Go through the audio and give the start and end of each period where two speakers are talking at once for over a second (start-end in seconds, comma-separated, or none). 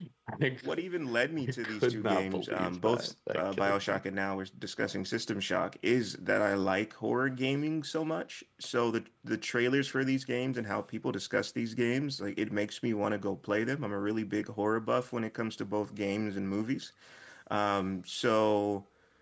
1.5-4.0